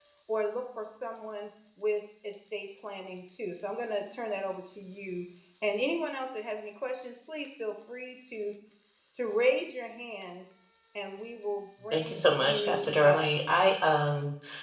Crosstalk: present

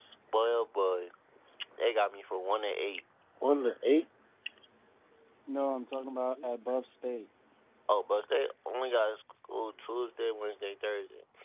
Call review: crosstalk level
none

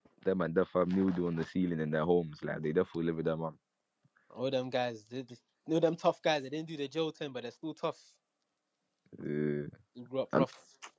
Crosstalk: none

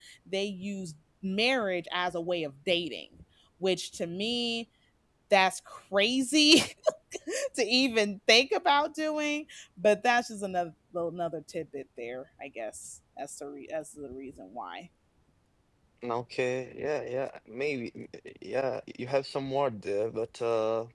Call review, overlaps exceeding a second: none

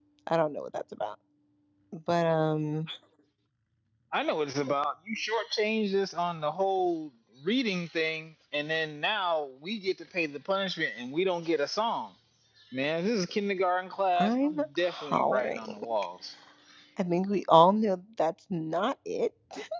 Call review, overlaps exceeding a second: present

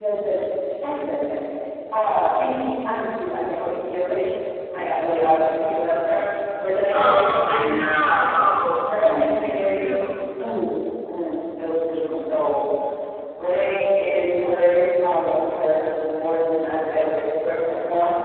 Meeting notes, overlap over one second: present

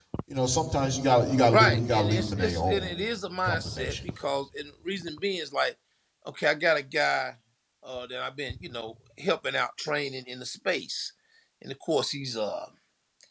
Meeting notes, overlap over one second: present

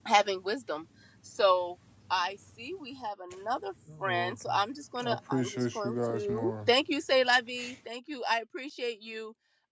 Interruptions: present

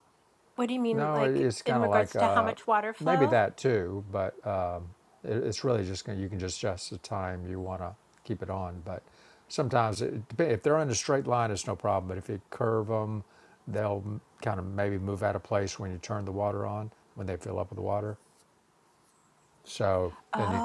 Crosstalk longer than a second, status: present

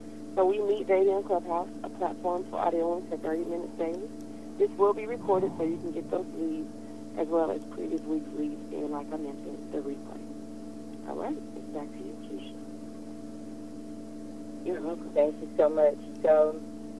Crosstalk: none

